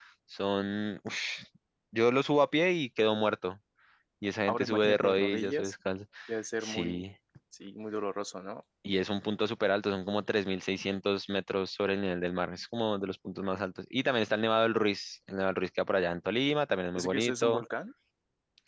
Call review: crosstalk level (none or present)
present